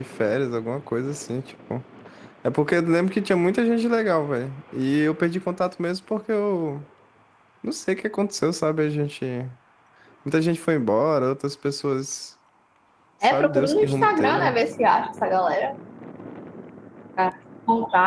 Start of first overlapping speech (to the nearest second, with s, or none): 13 s